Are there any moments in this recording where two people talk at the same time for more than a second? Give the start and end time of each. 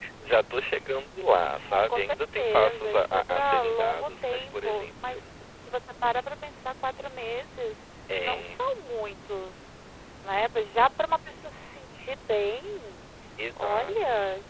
1.7-5.3

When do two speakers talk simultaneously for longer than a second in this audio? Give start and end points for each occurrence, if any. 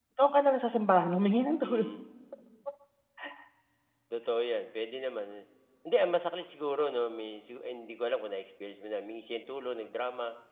none

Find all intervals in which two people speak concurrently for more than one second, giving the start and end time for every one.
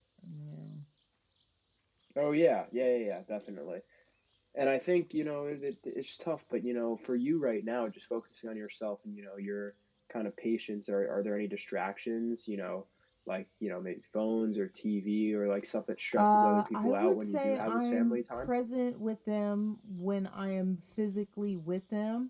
16.2-18.5

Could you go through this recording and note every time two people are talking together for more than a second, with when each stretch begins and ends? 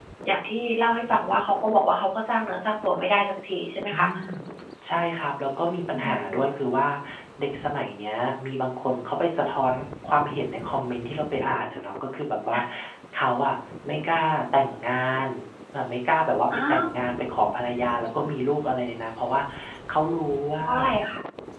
none

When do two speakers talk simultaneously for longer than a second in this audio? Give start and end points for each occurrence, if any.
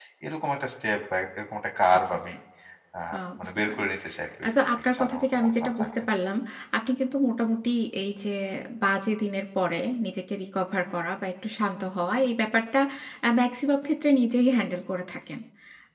4.5-6.0

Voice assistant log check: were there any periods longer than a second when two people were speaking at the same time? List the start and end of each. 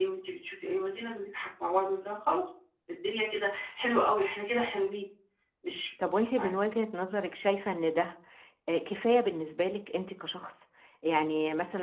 none

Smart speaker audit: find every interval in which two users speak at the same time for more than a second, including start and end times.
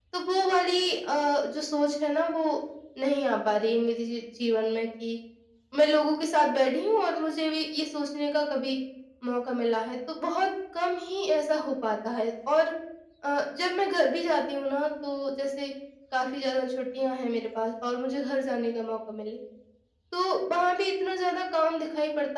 none

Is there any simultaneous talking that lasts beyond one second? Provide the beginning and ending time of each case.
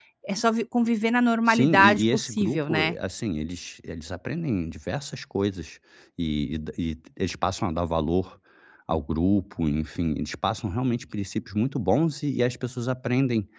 1.5-3.0

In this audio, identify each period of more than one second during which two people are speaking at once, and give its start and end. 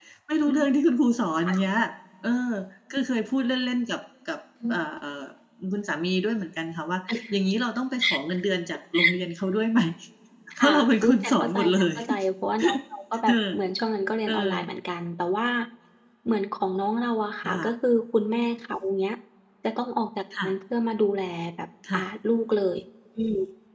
10.6-12.0

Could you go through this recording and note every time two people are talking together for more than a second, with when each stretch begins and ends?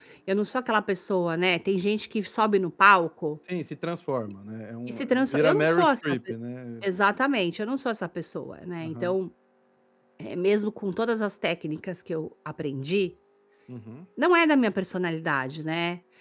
4.9-6.2

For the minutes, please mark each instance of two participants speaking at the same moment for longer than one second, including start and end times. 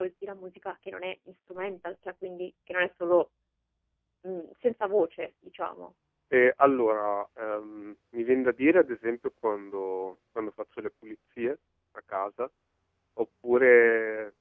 none

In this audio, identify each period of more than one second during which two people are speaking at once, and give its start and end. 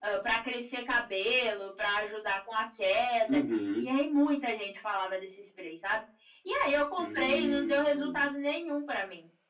7.0-8.3

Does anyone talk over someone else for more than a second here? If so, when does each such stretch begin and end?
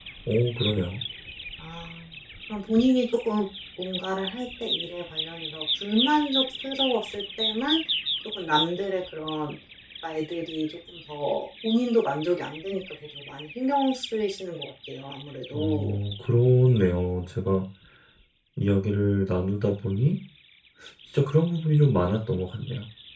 none

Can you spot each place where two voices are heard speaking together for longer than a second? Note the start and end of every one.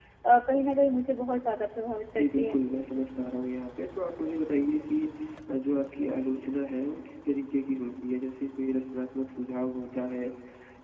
none

